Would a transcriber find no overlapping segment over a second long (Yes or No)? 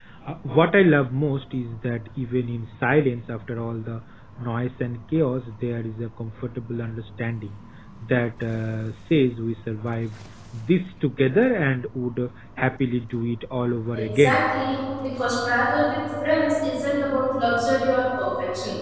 Yes